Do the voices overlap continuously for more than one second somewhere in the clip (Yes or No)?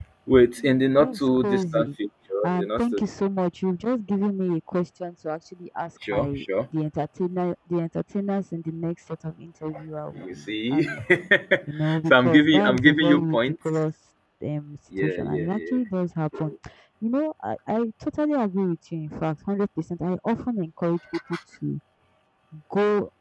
Yes